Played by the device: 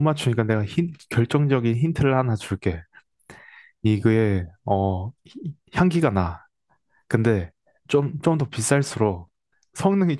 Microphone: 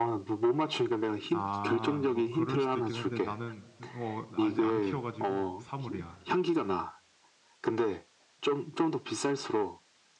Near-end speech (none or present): present